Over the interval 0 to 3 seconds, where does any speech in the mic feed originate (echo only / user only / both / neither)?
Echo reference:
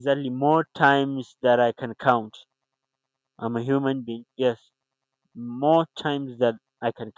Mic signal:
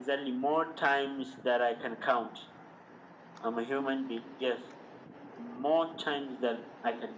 echo only